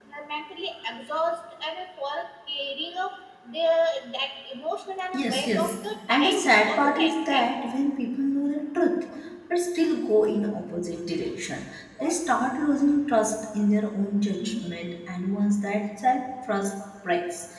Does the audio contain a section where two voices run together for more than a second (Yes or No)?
Yes